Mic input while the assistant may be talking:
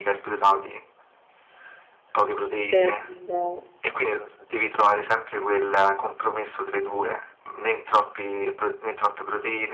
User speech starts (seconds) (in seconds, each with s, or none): 2.6 s